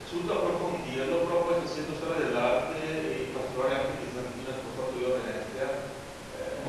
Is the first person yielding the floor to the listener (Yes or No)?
No